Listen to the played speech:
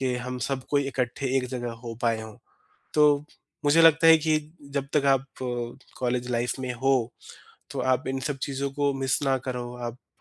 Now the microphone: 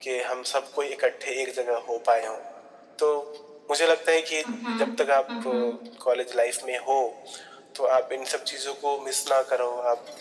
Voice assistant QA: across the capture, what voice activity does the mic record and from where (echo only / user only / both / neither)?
both